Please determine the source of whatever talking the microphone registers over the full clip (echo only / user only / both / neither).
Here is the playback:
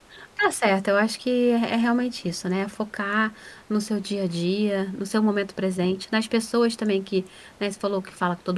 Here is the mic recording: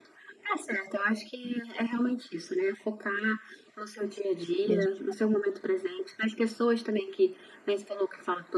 both